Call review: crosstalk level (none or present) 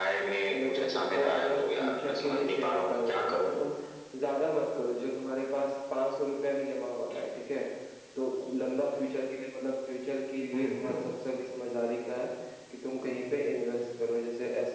present